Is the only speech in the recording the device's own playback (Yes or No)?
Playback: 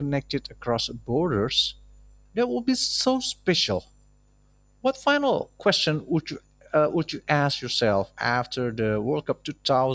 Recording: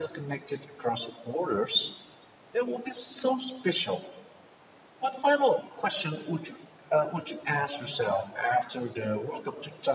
Yes